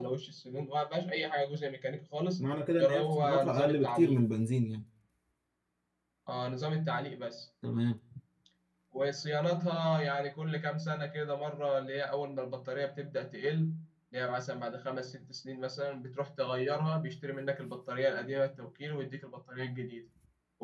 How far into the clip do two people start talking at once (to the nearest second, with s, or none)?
3 s